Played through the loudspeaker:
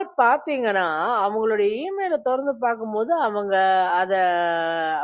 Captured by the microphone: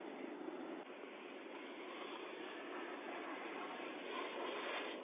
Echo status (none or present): none